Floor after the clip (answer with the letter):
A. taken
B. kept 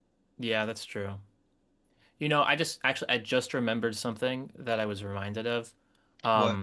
B